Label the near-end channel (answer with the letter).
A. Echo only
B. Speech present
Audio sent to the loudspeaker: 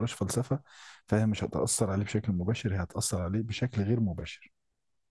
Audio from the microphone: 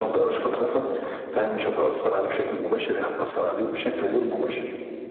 A